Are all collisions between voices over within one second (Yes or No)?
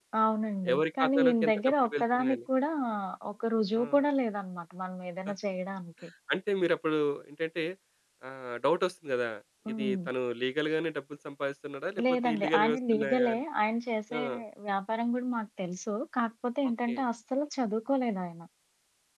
No